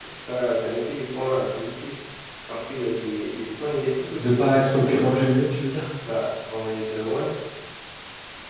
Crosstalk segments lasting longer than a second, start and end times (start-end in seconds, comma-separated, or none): 4.2-5.4